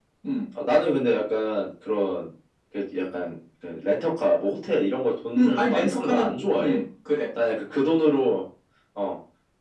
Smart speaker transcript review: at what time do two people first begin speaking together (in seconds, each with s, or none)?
5.4 s